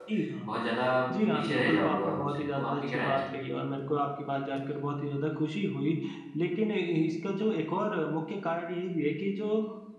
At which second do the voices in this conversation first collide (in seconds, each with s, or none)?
1.3 s